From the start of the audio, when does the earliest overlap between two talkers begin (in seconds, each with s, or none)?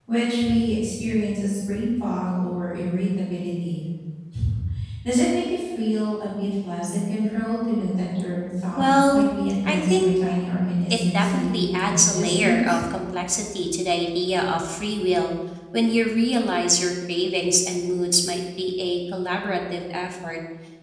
8.8 s